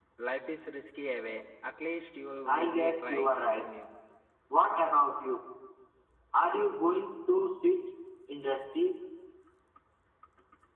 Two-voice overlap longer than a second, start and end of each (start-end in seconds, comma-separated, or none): 2.5-3.7